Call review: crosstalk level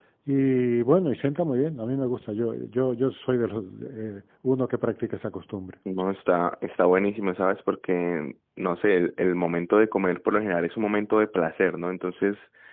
none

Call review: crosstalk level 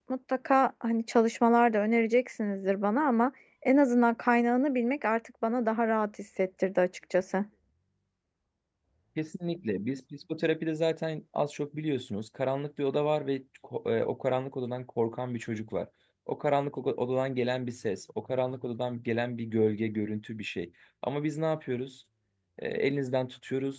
none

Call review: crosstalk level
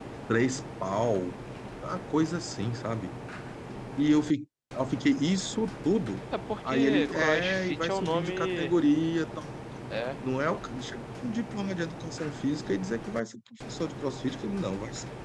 present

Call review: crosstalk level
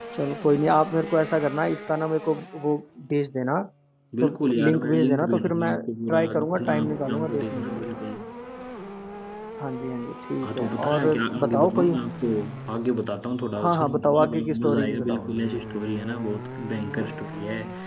present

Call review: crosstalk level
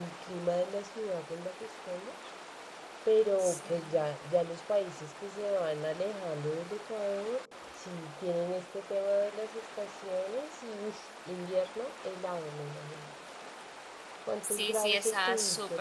present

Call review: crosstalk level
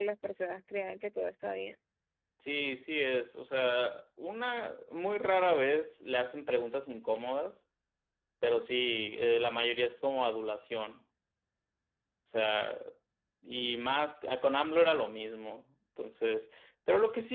none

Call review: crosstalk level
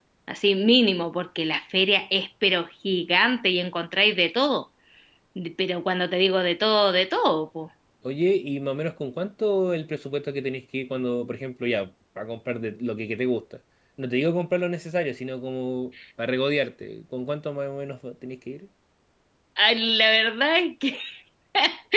none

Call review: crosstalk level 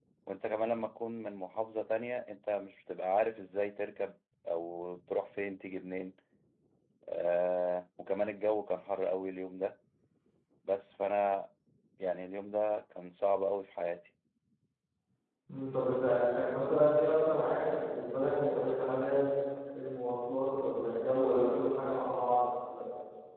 none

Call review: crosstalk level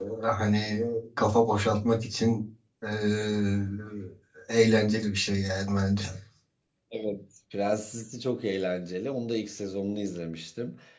none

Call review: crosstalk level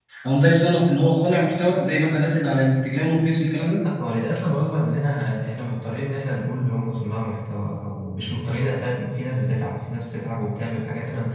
none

